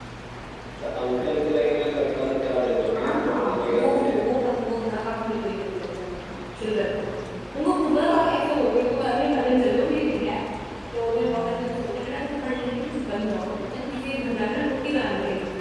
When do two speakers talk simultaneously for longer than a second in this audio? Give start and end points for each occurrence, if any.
2.9-4.3

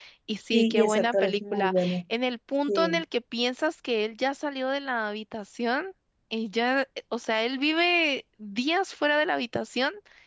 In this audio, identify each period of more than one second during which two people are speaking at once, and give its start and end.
0.5-1.7

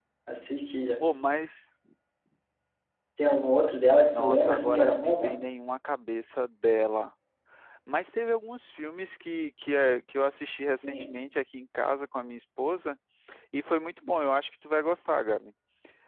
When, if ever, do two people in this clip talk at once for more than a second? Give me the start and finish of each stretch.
4.1-5.4

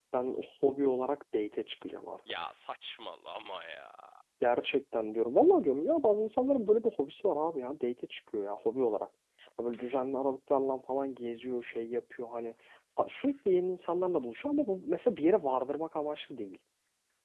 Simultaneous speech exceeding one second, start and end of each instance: none

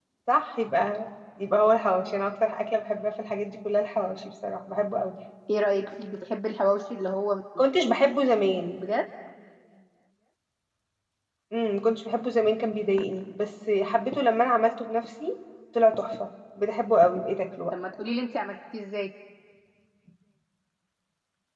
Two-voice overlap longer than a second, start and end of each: none

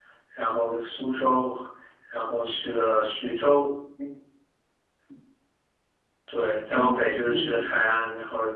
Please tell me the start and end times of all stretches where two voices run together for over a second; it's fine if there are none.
6.4-7.8

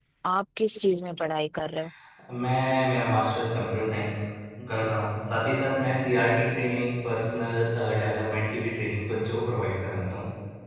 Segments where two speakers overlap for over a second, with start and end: none

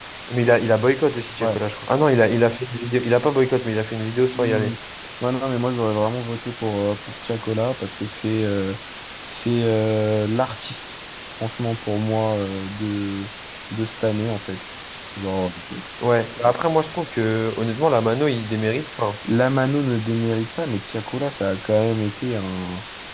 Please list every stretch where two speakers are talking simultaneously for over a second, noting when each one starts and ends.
none

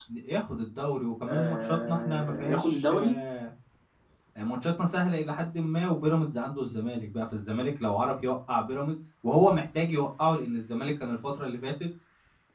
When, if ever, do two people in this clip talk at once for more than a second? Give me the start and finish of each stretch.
1.3-3.1

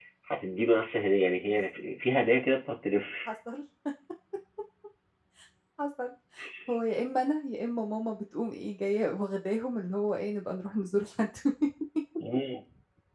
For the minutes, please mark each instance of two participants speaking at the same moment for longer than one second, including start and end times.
none

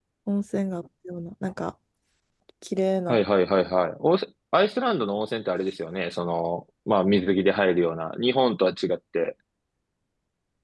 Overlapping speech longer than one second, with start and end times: none

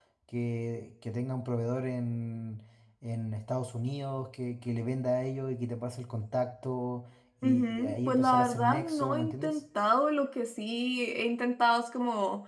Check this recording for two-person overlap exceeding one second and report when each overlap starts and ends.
7.4-9.6

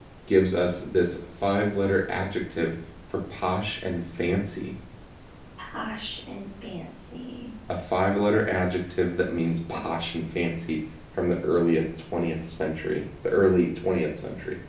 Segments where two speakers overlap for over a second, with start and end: none

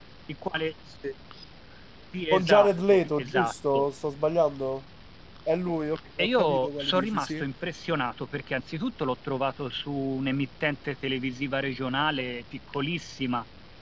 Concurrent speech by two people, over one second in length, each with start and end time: 2.3-3.9, 6.2-7.4

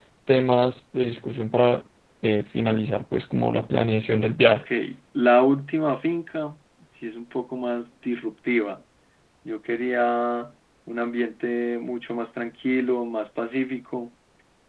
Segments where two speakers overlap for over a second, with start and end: none

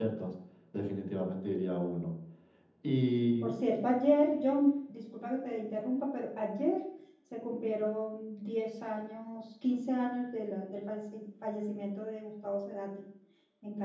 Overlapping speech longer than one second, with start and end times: none

